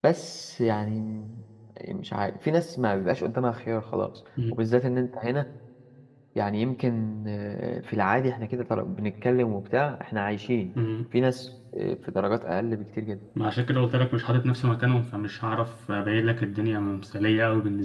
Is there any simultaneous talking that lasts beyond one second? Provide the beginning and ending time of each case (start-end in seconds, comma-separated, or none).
none